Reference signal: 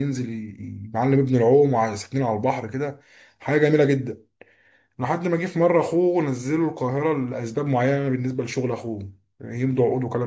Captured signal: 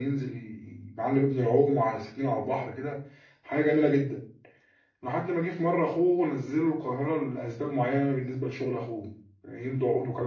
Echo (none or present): present